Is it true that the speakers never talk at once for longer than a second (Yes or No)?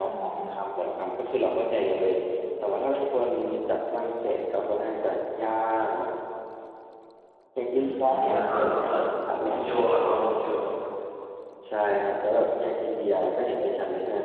No